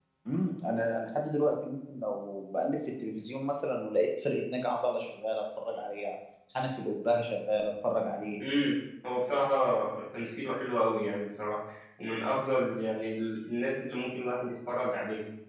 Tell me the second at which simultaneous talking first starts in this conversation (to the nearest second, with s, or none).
none